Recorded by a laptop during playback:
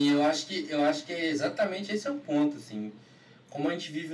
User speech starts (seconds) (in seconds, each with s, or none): none